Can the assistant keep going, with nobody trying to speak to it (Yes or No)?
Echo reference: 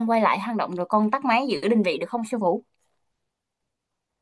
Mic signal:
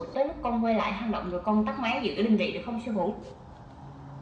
Yes